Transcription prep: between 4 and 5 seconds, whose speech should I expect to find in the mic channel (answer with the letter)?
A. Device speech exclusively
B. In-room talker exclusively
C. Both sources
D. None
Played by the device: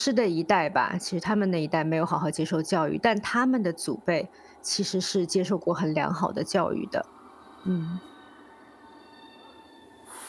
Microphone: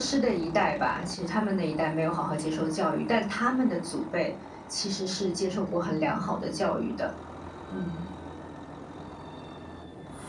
A